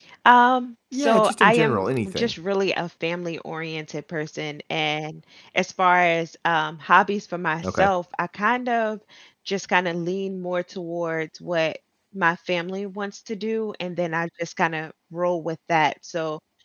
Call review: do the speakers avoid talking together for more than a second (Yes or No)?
No